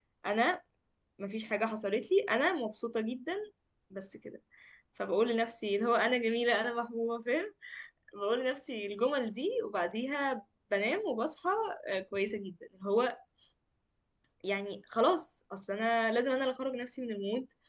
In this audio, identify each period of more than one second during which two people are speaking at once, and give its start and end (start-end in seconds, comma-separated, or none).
none